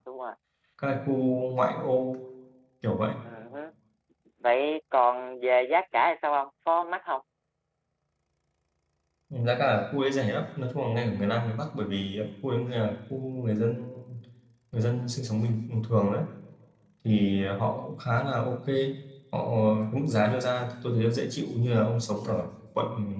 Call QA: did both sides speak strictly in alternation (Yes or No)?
Yes